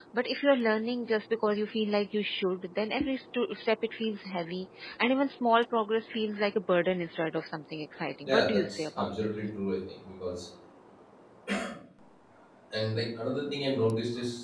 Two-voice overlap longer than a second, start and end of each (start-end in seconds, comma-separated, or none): 8.2-9.4